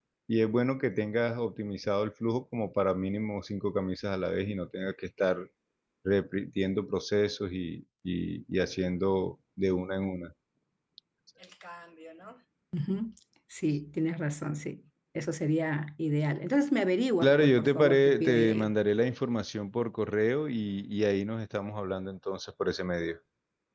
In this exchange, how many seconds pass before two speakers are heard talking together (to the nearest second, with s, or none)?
17 s